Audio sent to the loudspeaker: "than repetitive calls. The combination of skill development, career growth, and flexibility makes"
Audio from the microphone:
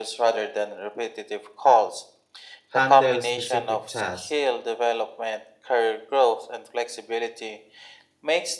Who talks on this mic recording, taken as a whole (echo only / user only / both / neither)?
both